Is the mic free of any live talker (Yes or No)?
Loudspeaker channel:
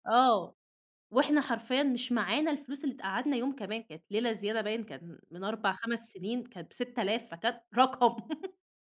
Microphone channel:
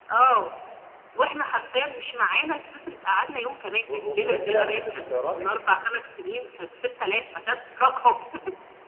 No